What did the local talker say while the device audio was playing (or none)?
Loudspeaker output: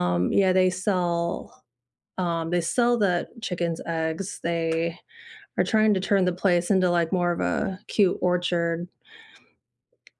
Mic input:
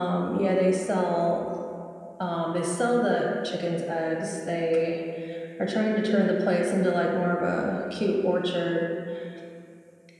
none